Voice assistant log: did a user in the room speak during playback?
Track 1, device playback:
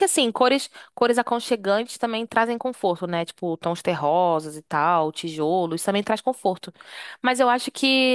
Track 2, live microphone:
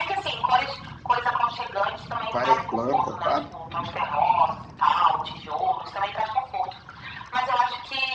Yes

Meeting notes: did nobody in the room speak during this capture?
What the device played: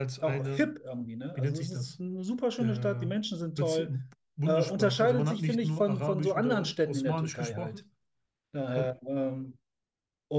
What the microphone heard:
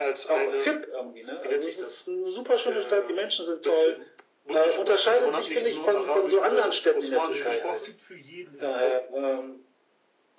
No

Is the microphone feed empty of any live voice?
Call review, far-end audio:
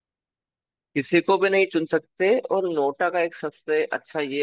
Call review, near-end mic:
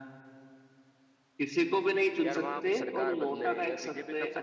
No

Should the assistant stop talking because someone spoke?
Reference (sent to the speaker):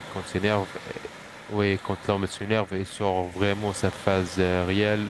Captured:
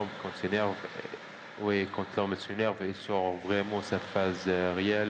No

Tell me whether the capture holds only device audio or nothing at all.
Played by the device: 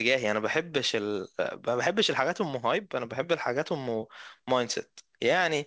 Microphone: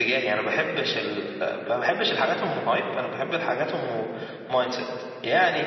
Yes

